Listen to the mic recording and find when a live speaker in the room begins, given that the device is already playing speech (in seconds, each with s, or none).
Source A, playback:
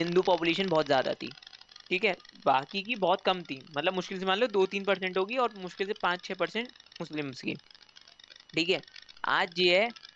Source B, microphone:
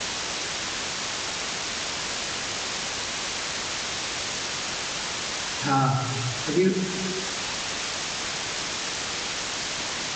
5.6 s